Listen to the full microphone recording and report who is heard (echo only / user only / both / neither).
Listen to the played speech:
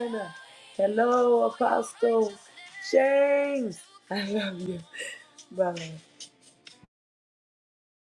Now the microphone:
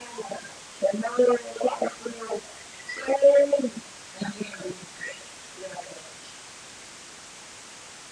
echo only